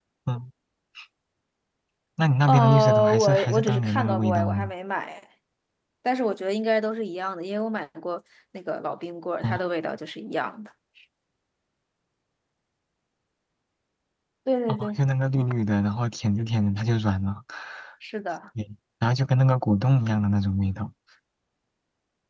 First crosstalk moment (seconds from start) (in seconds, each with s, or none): 2.5 s